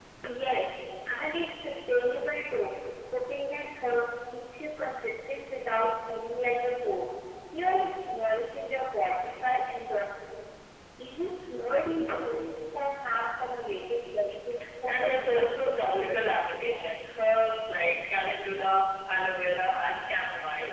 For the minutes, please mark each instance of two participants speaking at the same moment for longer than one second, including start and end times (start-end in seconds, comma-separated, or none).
14.9-16.2